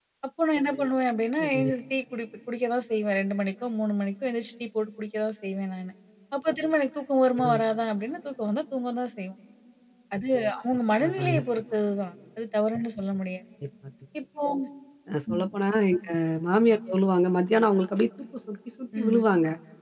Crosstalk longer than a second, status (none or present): none